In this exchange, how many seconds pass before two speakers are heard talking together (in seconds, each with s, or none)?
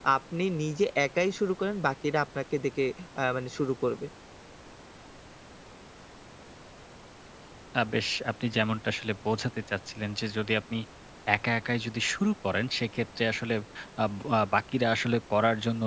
none